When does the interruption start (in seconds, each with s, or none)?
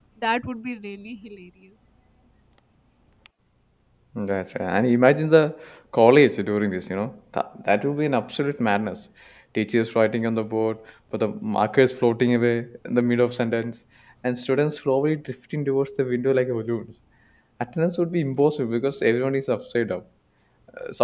none